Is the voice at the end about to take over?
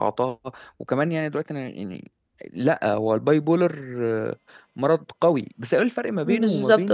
Yes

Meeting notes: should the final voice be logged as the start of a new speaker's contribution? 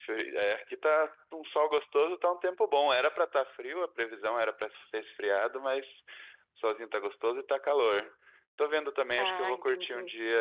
No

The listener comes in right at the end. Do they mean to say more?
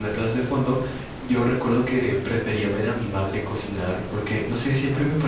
No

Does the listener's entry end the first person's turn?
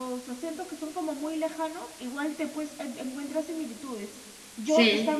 No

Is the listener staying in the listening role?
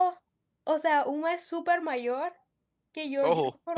Yes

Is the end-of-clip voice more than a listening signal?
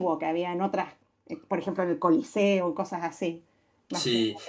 Yes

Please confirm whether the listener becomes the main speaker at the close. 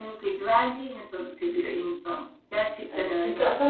Yes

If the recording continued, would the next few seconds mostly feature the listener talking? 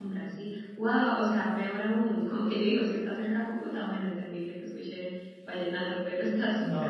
Yes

